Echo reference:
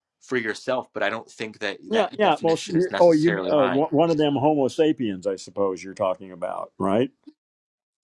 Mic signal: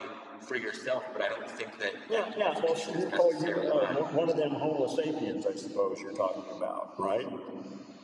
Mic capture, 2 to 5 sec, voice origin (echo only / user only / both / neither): echo only